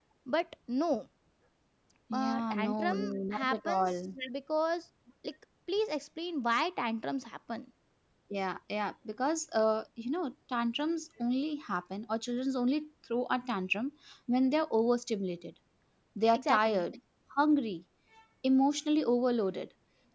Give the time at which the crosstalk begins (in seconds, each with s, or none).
2.1 s